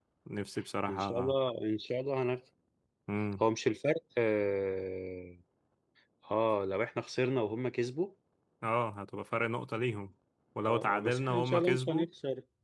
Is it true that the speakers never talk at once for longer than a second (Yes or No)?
No